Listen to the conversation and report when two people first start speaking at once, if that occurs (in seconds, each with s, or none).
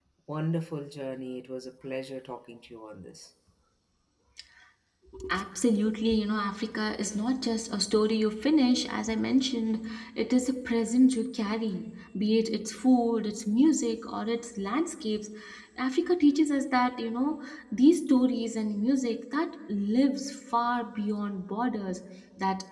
none